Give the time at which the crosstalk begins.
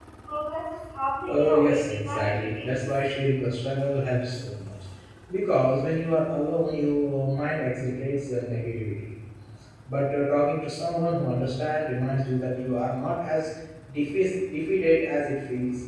1 s

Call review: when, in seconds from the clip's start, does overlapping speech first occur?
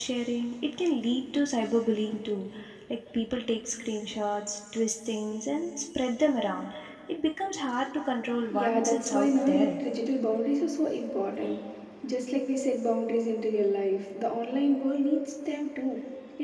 8 s

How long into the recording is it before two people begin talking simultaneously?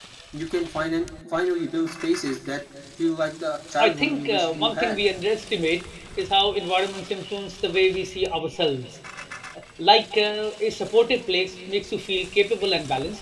4 s

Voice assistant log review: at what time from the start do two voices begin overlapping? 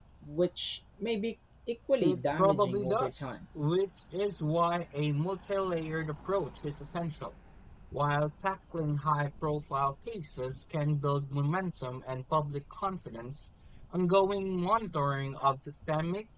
2 s

